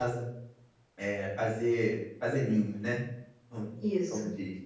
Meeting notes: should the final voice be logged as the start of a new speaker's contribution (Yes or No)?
No